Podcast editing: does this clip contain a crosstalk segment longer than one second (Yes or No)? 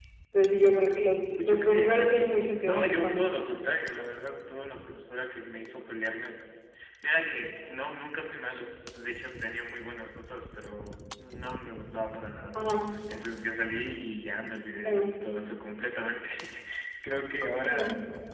Yes